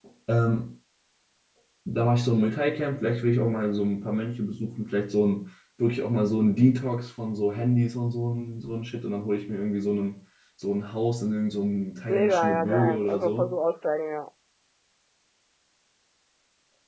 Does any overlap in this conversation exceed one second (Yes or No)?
Yes